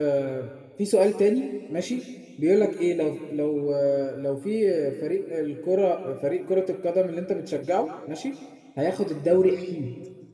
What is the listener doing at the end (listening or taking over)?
listening